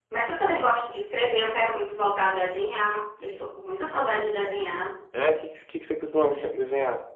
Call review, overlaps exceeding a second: none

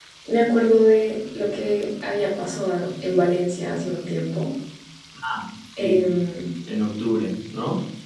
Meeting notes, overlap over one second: none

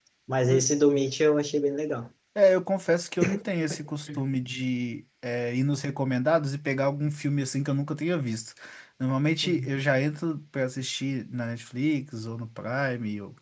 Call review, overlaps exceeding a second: none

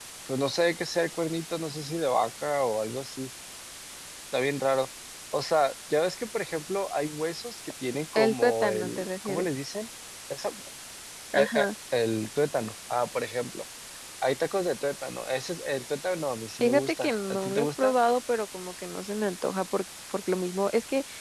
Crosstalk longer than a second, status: present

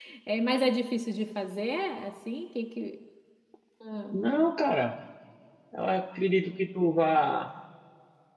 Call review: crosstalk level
none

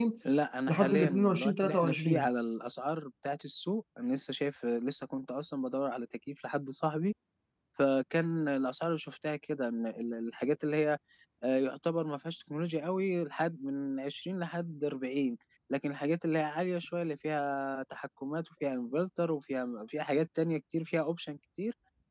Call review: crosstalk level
present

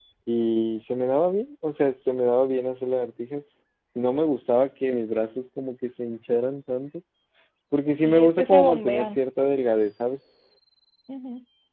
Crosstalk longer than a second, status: present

